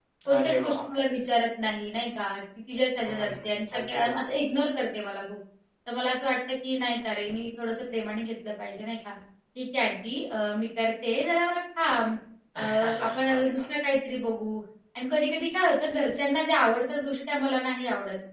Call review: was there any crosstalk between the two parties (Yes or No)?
Yes